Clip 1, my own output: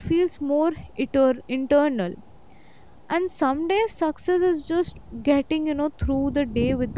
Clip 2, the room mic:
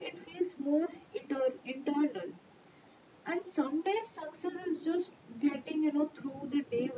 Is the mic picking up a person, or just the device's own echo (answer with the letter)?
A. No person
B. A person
A